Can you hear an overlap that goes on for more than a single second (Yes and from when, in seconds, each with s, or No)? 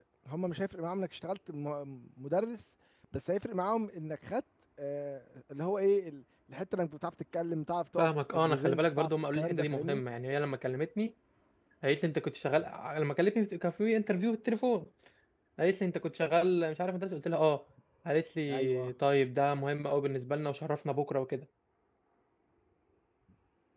Yes, from 8.0 s